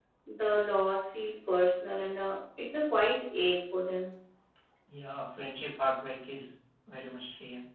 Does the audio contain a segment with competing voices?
No

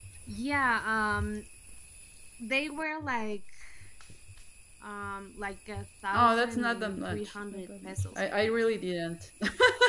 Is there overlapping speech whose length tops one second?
Yes, from 6.1 s

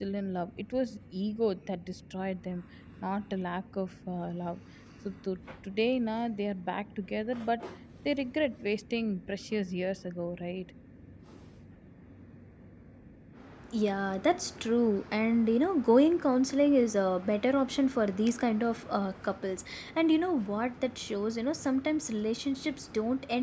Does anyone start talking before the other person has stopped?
No

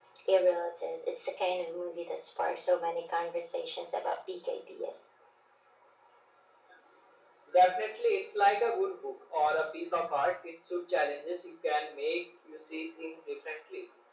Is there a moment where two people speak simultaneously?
No

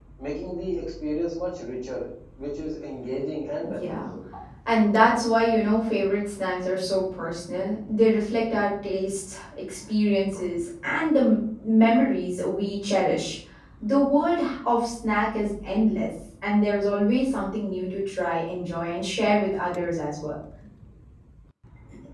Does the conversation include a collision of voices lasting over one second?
No

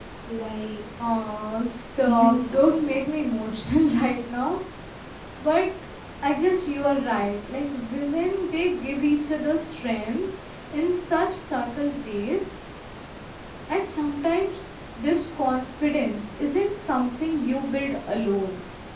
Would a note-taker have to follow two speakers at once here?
Yes, from 2.0 s

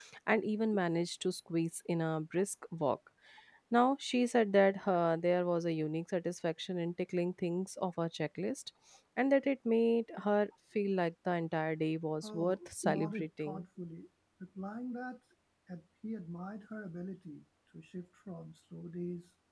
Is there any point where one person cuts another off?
Yes, from 12.2 s

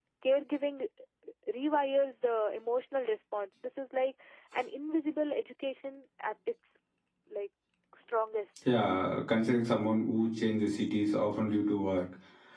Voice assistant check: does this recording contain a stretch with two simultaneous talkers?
No

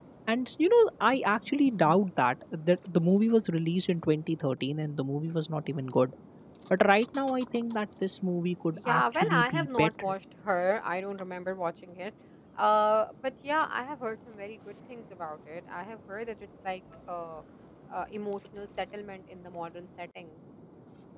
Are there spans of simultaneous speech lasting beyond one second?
Yes, from 8.7 s

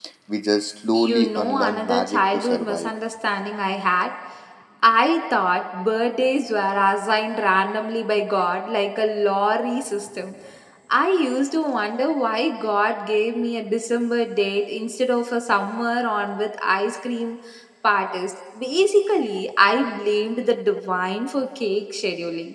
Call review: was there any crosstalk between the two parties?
Yes, from 0.9 s

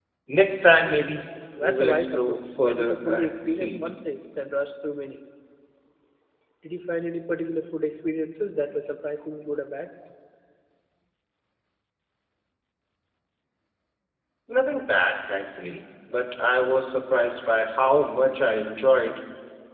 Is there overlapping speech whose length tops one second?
Yes, from 1.5 s

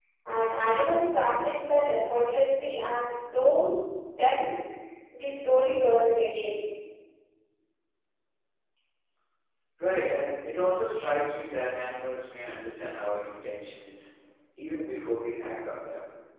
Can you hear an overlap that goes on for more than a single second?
No

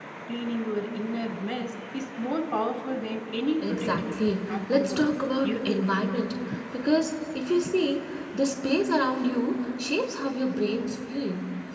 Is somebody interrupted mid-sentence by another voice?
Yes, from 3.6 s

